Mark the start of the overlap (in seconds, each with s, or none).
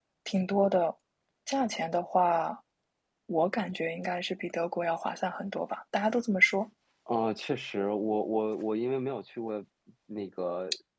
none